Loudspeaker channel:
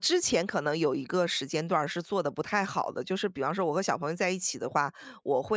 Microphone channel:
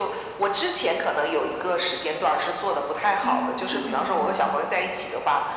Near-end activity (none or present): present